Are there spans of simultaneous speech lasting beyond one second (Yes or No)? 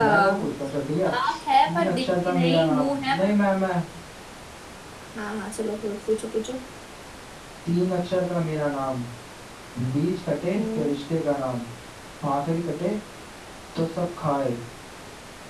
Yes